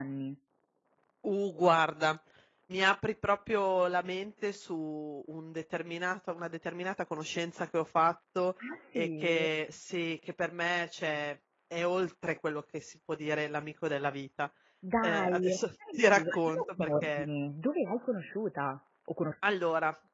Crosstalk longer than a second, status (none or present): present